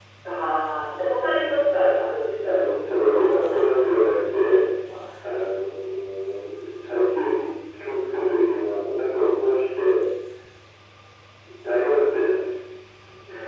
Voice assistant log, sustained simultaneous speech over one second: present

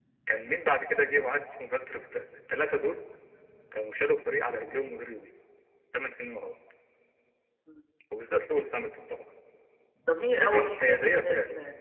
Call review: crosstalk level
present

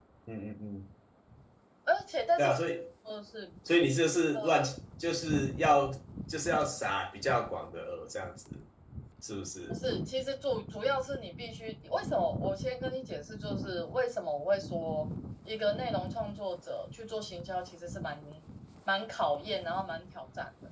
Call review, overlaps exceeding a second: none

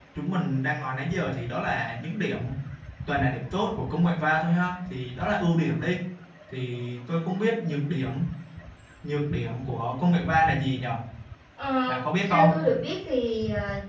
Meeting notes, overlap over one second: none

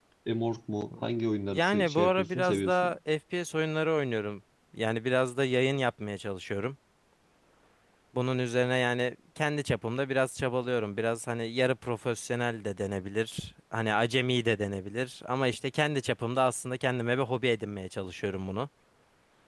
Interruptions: present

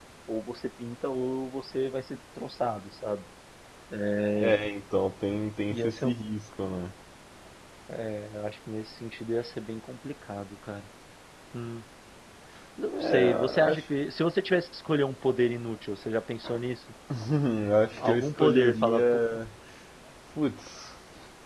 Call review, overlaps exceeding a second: present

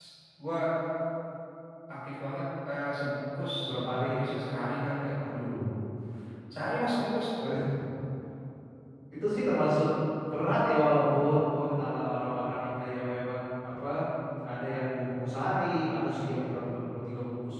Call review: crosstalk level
none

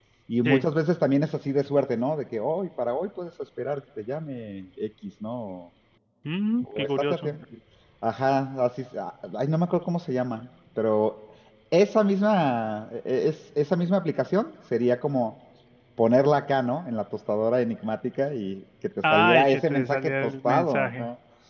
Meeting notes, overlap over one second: present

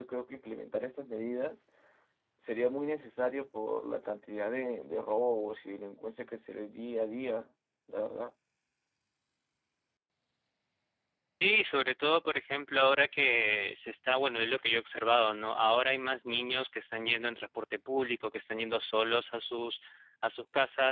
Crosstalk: none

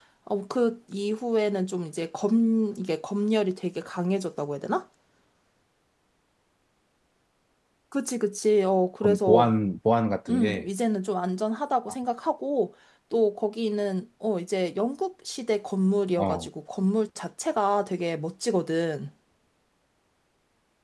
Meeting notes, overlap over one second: none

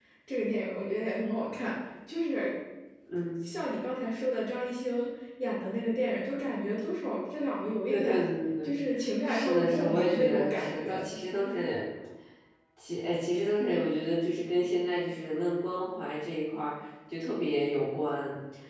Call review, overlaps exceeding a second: present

